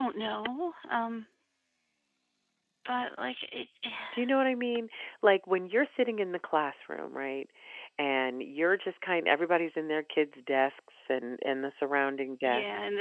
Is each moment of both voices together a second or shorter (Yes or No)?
Yes